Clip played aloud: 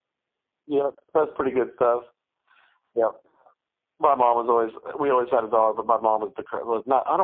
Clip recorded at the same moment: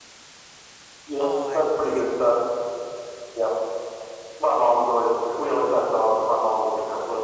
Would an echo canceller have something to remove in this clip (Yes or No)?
Yes